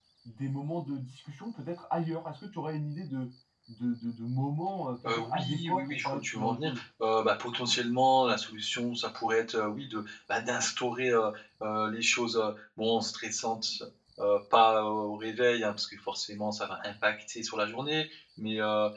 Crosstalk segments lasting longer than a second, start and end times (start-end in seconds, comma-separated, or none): 5.0-6.8